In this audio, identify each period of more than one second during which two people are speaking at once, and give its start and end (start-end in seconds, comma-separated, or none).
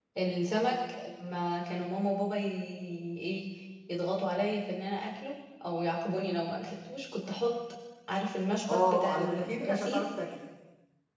8.7-10.1